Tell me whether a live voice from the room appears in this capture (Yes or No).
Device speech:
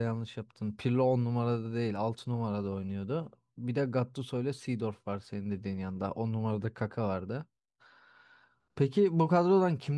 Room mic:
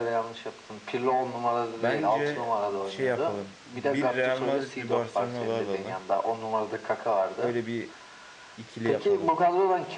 Yes